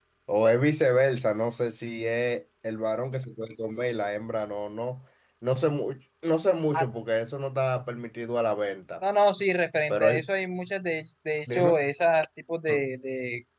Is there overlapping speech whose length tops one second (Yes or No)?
No